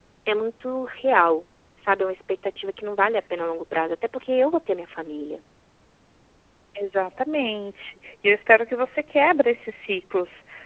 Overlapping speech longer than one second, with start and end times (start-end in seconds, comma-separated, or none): none